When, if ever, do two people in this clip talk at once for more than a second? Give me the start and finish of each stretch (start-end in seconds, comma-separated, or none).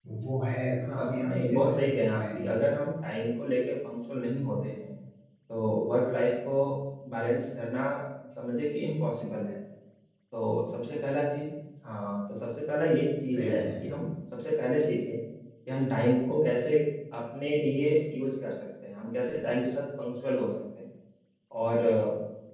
0.8-2.5